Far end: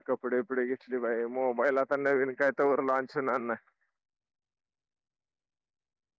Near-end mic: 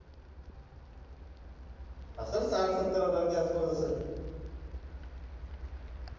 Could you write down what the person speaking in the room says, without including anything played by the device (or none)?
असल साठ सत्तर हजारच्या आसपास असल.